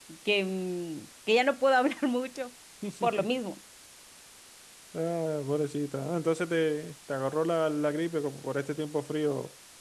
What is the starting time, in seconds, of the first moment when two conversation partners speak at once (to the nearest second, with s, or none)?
none